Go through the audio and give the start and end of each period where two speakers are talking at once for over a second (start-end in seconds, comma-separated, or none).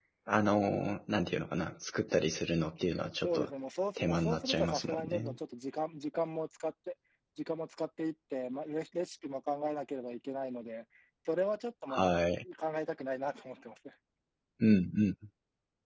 4.0-5.4